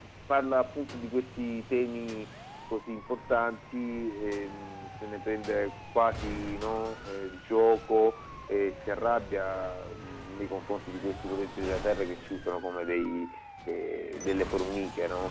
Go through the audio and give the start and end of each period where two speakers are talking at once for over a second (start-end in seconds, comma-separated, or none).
none